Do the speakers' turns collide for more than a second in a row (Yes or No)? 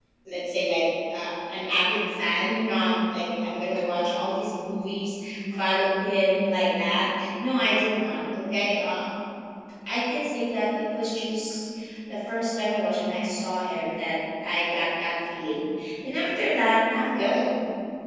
No